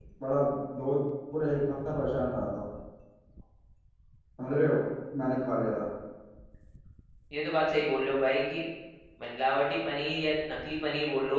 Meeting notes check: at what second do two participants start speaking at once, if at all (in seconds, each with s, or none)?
none